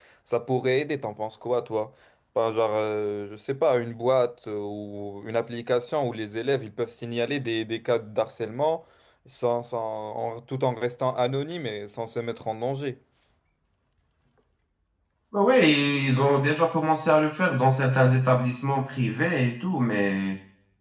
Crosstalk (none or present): none